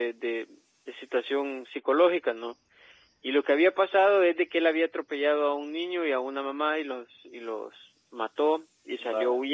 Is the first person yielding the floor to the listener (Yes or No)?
No